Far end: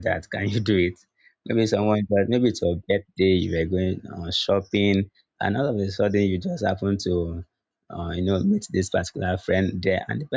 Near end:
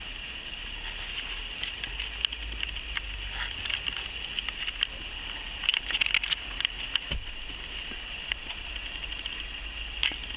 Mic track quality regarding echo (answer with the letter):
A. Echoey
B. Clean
B